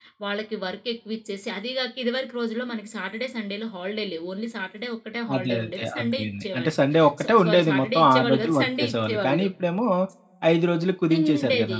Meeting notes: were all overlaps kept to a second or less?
No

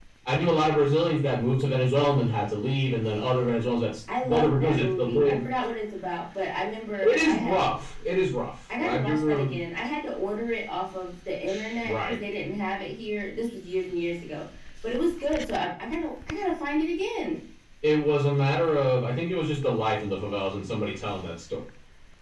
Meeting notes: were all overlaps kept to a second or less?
No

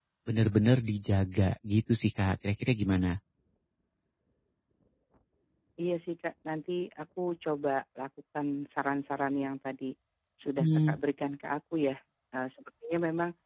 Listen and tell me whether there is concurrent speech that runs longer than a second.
No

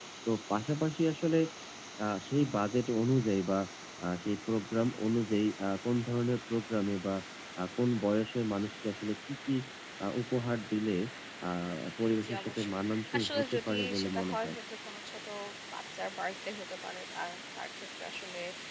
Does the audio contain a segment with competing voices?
Yes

